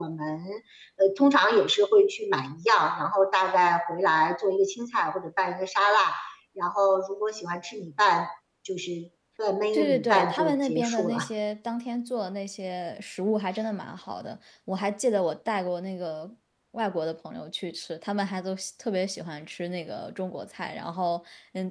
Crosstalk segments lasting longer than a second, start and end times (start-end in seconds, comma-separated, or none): 9.7-11.2